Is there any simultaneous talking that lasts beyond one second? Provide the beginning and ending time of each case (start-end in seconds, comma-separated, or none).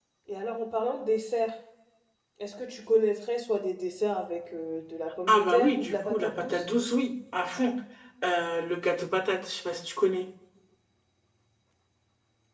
5.3-6.7